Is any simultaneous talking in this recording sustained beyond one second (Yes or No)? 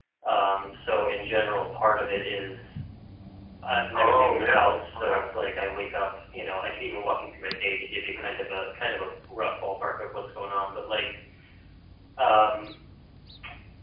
Yes